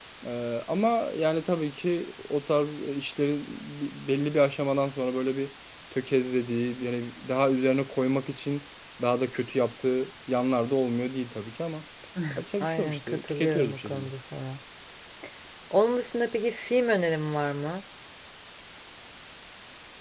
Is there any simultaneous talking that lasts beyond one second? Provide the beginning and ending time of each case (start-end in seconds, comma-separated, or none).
12.6-14.1